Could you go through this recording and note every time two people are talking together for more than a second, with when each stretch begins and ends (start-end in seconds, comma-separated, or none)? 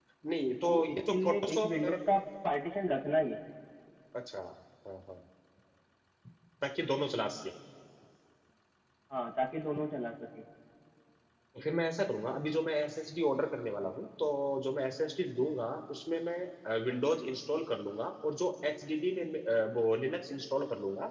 0.6-1.9